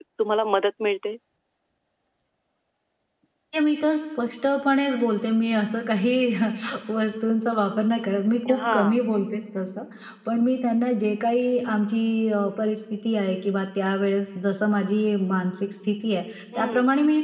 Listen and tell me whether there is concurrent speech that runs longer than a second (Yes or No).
No